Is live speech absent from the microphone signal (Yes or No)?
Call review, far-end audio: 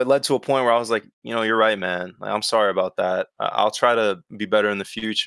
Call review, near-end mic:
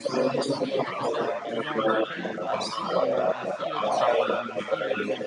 No